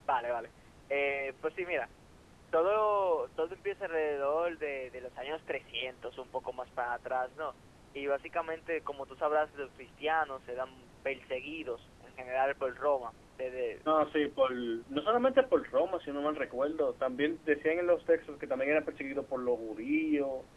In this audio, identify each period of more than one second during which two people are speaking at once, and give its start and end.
none

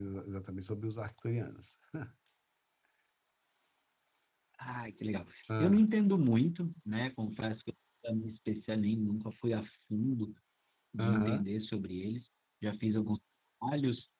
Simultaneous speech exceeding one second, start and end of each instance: none

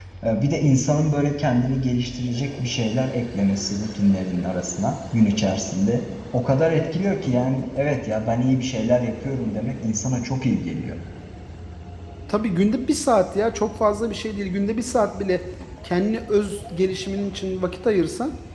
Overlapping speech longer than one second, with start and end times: none

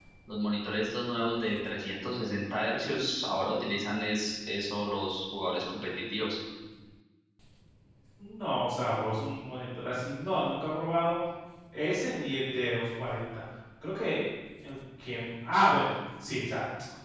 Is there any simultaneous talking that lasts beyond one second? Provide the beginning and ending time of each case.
none

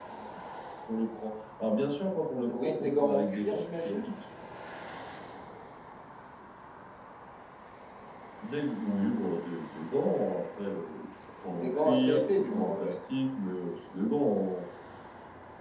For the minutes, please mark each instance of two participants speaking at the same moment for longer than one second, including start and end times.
2.5-4.0, 11.5-12.9

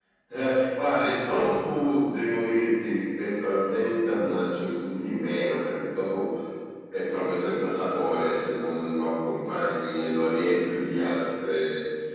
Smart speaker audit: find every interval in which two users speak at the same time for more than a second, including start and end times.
none

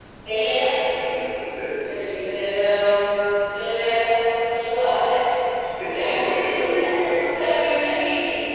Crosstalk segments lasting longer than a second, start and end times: 5.9-7.4

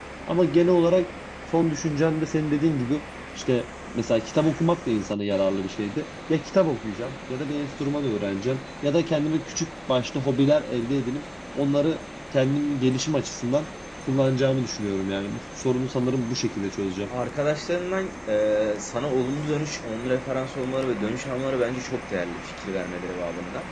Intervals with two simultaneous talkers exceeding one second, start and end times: none

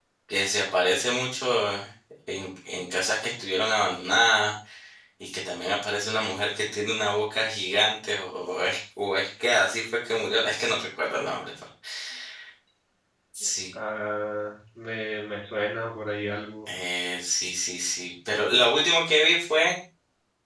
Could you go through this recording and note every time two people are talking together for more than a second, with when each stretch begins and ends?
none

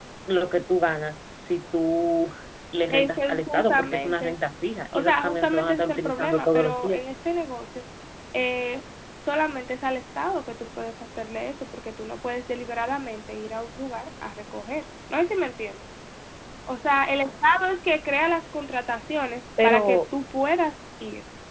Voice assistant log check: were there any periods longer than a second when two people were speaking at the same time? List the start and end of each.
2.9-4.4, 4.9-7.0

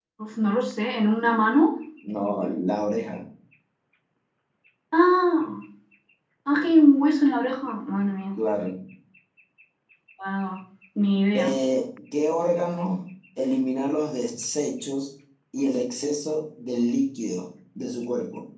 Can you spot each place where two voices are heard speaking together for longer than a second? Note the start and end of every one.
none

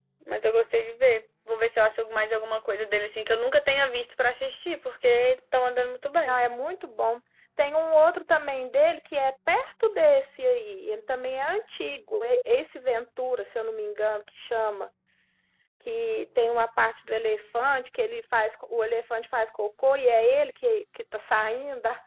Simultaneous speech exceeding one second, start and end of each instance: none

